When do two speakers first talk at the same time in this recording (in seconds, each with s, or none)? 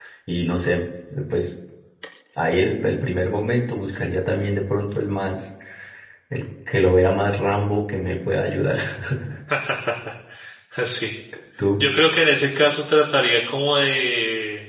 none